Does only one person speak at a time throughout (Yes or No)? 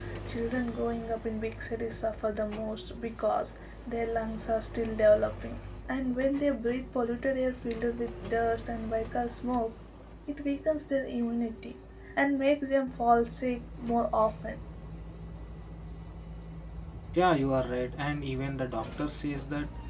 Yes